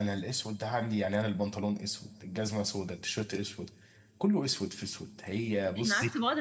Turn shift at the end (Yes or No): Yes